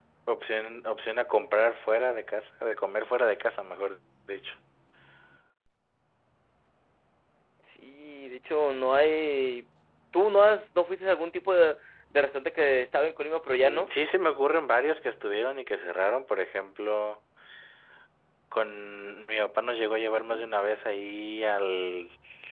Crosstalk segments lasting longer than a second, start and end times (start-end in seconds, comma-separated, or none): none